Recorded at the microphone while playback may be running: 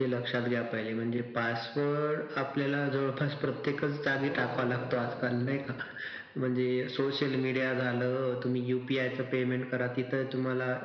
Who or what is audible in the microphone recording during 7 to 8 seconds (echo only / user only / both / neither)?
echo only